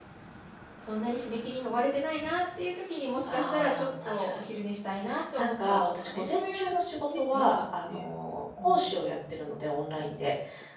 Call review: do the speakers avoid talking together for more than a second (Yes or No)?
No